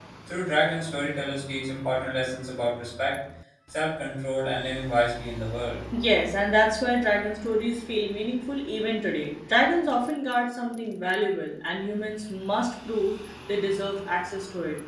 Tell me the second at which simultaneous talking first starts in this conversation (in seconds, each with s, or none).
none